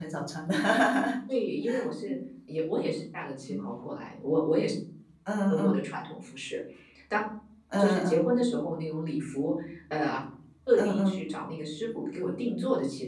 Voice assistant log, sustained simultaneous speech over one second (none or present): none